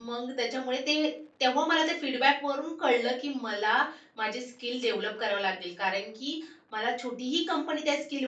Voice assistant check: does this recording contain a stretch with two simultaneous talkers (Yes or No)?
No